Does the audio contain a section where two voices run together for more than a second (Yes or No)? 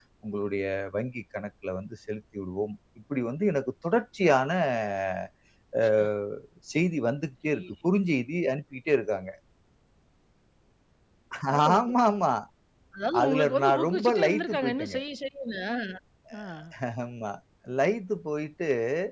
Yes